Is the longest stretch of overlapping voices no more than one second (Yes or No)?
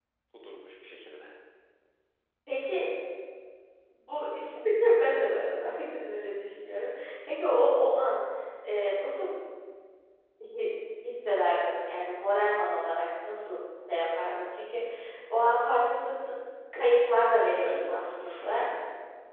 No